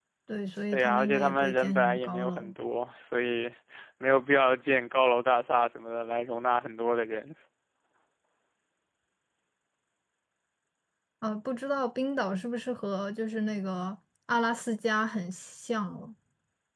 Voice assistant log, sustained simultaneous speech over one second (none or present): present